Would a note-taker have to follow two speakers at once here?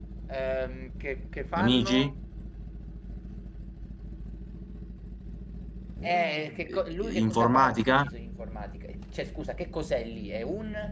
Yes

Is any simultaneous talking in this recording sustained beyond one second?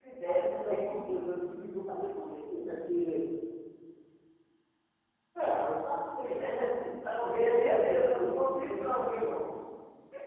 Yes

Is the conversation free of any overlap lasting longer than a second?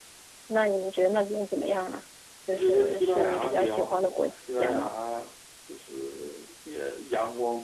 No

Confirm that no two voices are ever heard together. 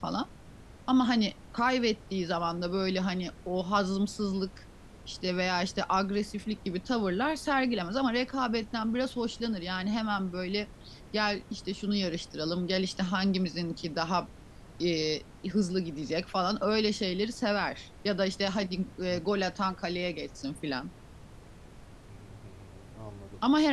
Yes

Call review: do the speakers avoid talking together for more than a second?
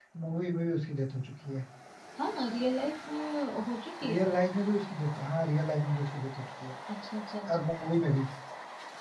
Yes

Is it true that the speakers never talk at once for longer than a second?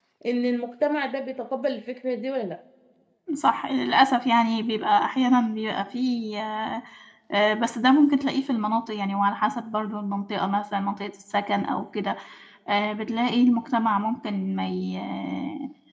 Yes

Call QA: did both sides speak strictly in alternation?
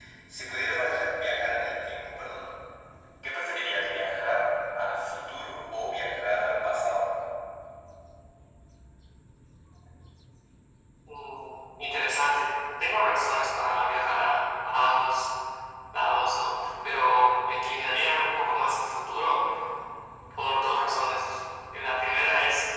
Yes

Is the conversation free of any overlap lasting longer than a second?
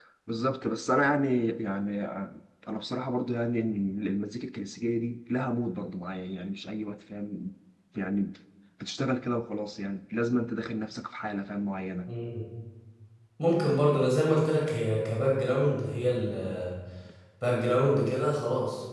Yes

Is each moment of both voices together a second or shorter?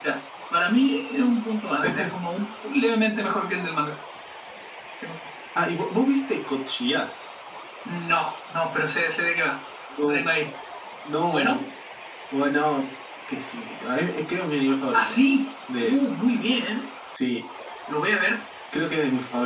Yes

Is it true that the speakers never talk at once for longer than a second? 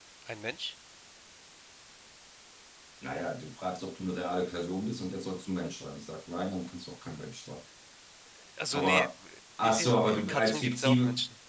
No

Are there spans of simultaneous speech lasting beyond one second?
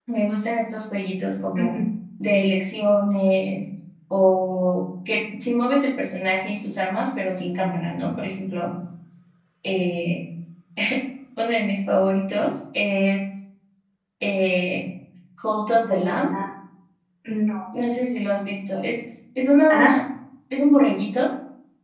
No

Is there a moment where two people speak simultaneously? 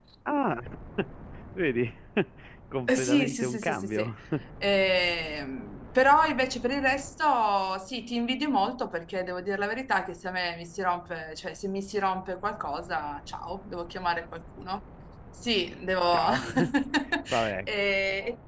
Yes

